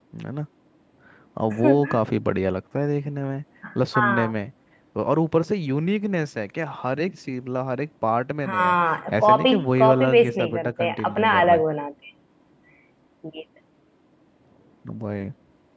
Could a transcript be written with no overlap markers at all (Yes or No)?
No